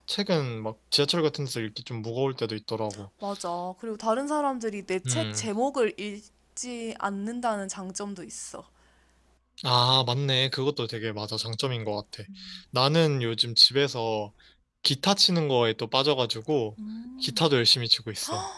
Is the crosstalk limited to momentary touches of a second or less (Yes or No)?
Yes